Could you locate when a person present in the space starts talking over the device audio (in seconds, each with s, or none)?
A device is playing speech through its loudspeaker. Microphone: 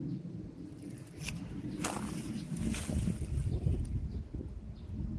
none